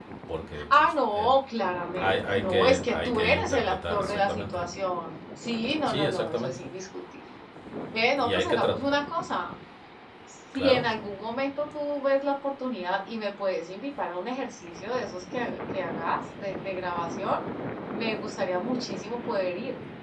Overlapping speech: Yes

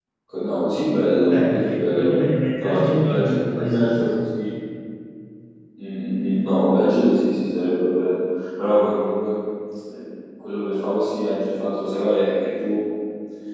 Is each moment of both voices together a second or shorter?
No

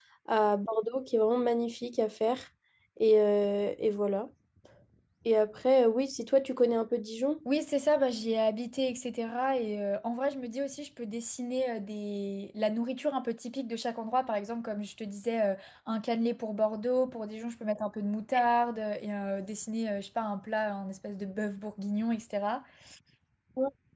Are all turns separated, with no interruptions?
Yes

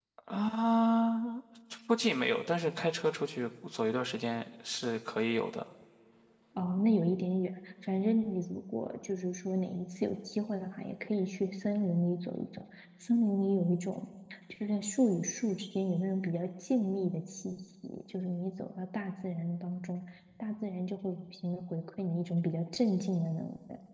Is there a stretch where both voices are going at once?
No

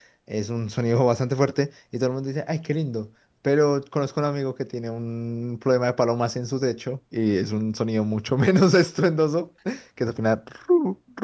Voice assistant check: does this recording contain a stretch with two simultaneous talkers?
No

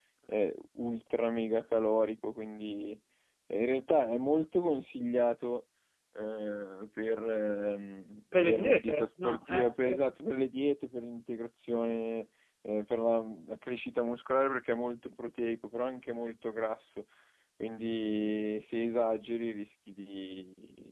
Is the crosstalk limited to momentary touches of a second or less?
No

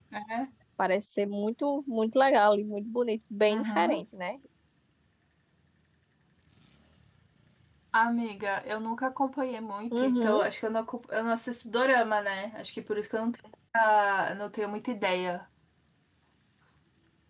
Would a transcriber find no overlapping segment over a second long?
Yes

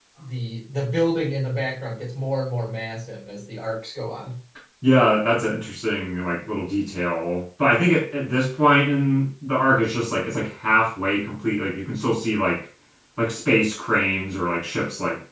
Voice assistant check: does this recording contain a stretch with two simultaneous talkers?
No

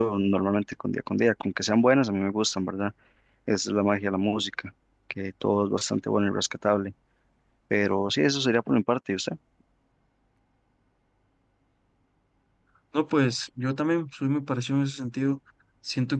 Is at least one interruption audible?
No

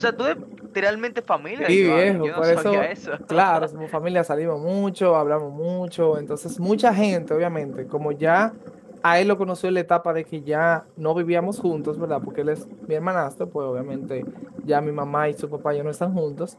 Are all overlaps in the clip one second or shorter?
No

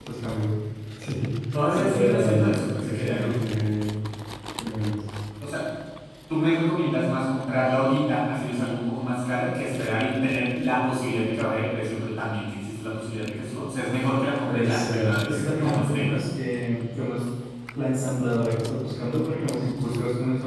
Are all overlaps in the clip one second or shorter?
No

